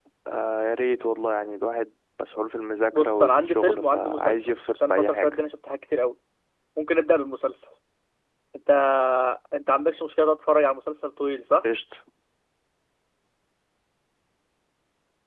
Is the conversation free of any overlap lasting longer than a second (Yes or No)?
No